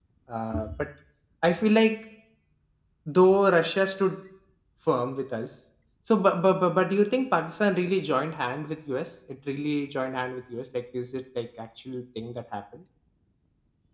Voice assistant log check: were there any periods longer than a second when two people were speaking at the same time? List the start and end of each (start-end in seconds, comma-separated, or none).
none